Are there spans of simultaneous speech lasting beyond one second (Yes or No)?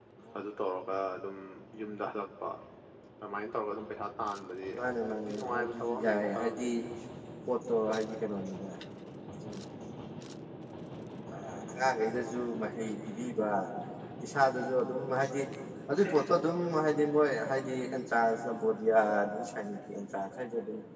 Yes